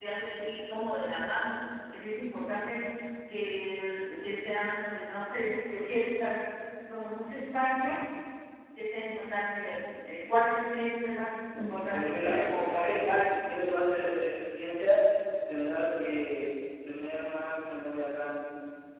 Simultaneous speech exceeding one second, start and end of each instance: 11.9-13.4

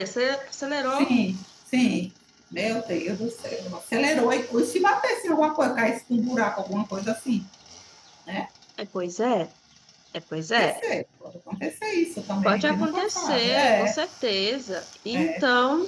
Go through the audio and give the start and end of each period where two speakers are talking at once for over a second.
12.4-14.0

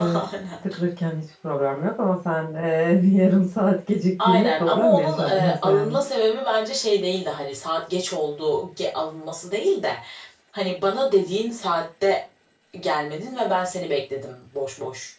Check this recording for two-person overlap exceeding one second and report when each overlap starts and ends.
4.2-6.0

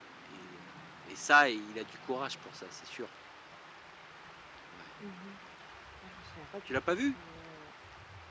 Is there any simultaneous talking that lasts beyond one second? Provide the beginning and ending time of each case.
none

